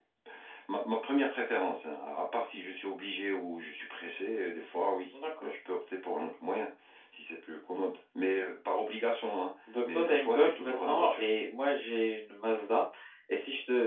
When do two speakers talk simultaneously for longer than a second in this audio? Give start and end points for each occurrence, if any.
9.9-11.2

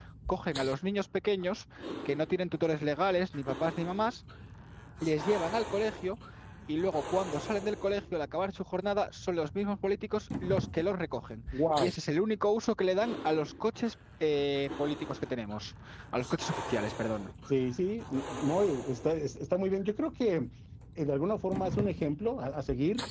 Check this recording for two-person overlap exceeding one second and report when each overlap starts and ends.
none

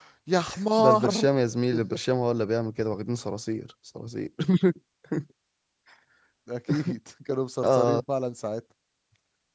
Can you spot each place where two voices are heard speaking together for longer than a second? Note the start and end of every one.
none

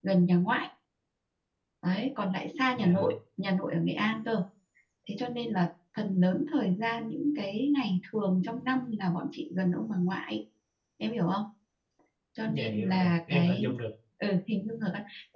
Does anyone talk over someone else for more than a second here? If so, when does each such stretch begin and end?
12.5-13.7

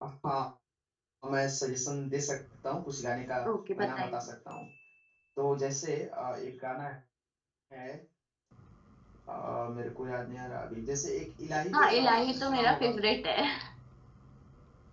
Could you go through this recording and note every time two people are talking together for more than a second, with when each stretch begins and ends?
11.7-13.0

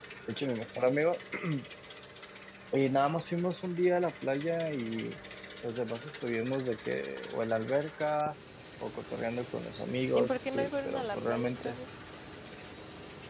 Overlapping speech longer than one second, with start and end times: 10.2-11.8

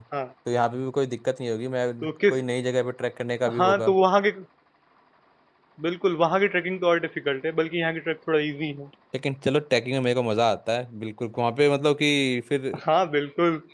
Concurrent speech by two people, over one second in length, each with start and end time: none

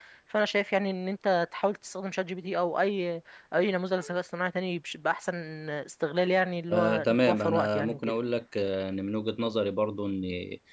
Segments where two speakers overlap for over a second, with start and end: 6.7-8.1

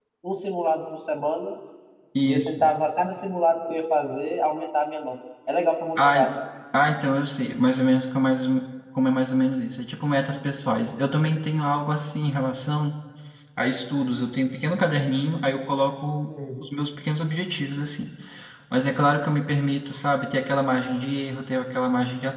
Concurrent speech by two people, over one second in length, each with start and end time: none

